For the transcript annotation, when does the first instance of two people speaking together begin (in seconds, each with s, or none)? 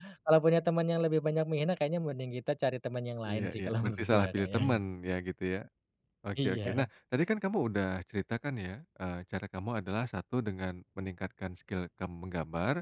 3.3 s